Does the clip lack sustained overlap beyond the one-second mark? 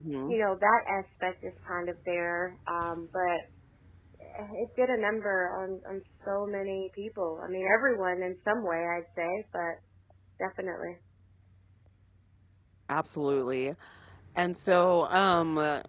Yes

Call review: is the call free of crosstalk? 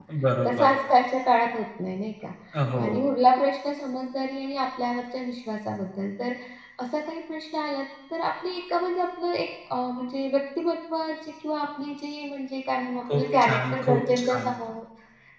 No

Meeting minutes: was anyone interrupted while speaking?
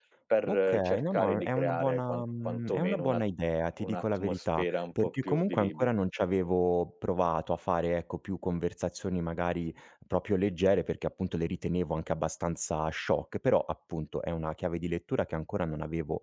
Yes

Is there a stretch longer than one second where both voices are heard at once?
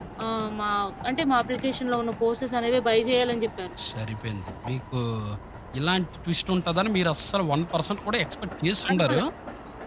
No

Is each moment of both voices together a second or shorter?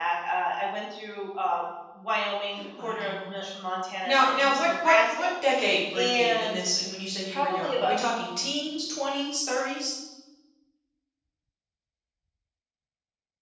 No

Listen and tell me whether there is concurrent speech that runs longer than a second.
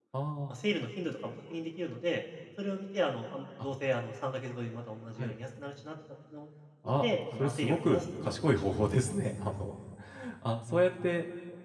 Yes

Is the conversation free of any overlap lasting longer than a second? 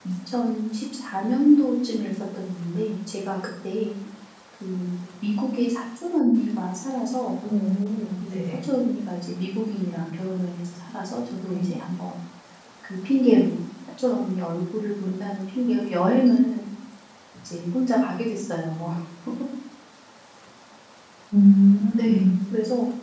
Yes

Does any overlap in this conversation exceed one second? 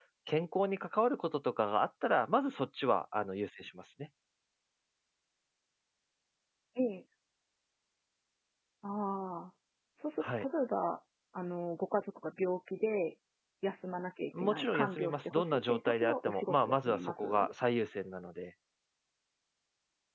Yes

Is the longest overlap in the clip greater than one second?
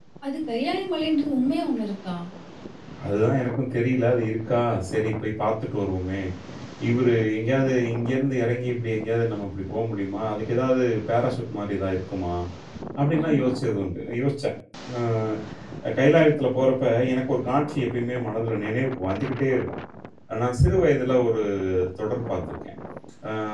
No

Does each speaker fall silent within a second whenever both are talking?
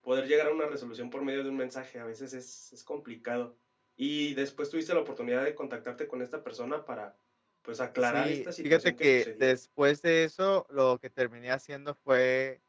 No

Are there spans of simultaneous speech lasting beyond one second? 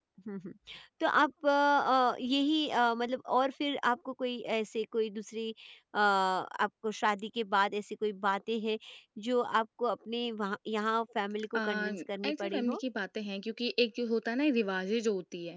No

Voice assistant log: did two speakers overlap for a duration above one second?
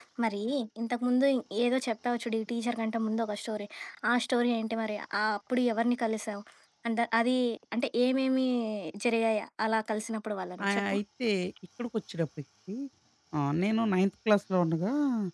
No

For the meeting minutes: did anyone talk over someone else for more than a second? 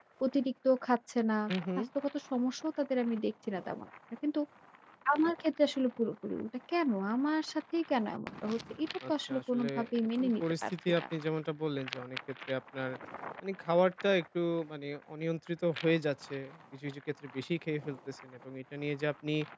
Yes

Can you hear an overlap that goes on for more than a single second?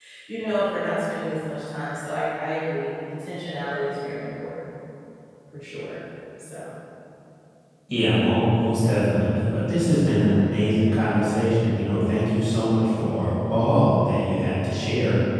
No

